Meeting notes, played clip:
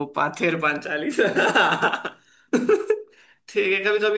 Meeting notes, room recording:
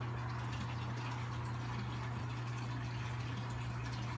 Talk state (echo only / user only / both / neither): neither